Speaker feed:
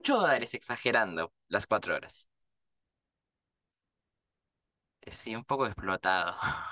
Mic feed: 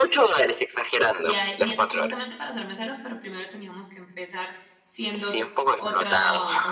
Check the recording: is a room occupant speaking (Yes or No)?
Yes